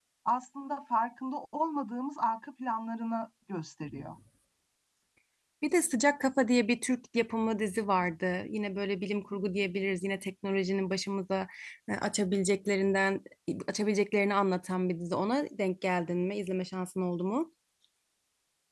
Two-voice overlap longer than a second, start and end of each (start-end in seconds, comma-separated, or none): none